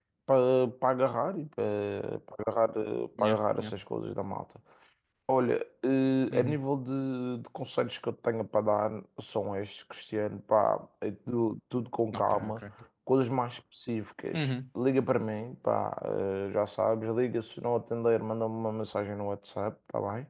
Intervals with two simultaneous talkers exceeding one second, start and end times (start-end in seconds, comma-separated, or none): none